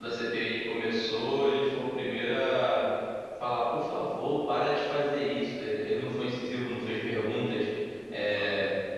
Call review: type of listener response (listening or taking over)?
listening